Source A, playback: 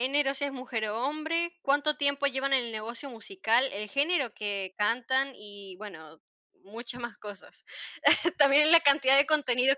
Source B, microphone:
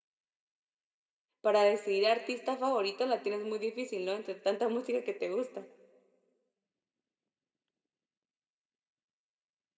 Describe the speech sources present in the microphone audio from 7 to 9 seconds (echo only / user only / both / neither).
neither